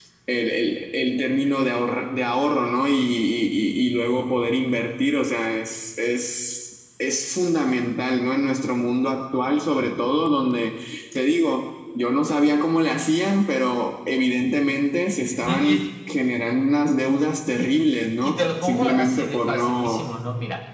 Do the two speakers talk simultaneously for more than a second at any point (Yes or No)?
Yes